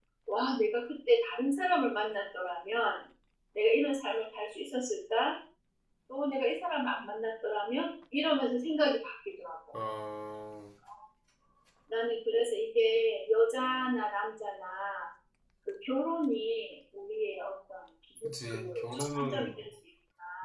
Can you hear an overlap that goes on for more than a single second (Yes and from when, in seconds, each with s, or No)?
Yes, from 18.2 s